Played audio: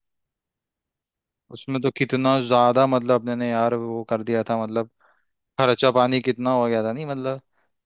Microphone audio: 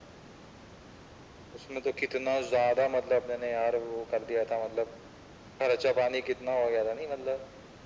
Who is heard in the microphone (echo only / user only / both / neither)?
echo only